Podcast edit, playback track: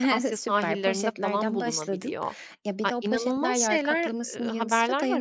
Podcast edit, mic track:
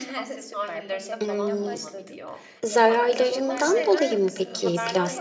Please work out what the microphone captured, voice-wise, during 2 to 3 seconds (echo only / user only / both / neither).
both